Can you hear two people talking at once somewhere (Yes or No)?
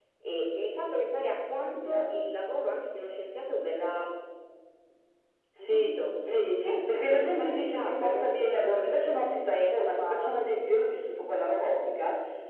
Yes